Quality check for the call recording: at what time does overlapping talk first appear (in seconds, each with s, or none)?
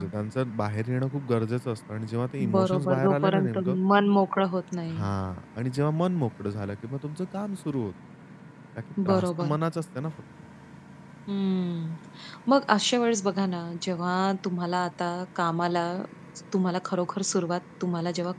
2.5 s